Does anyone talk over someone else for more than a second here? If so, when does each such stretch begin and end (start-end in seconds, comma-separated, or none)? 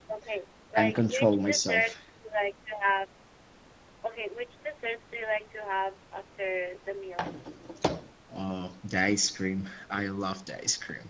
0.7-2.0